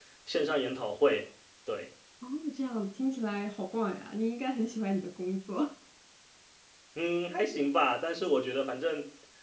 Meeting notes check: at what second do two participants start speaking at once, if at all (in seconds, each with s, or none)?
none